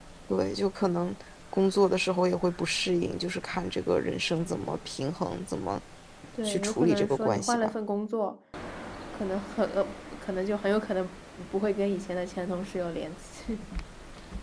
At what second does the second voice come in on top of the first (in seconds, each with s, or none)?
6.4 s